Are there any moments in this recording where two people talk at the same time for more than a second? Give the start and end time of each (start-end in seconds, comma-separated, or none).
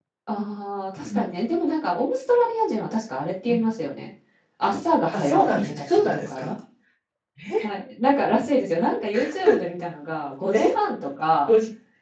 5.1-6.5